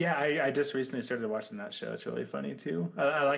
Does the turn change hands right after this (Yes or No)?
No